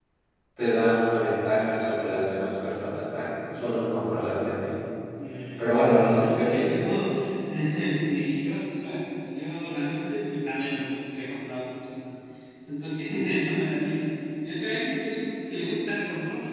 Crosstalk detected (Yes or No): Yes